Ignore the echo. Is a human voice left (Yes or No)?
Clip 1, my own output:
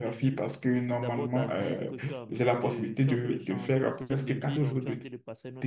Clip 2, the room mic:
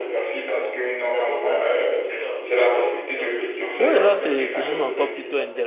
Yes